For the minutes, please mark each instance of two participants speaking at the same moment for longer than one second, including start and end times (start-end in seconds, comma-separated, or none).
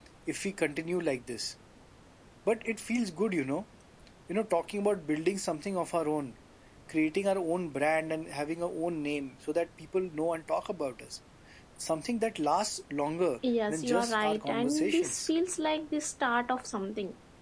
13.7-15.3